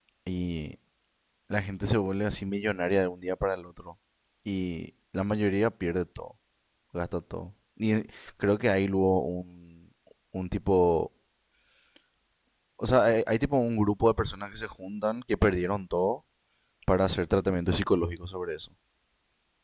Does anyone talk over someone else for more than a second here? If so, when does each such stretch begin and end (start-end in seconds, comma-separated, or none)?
none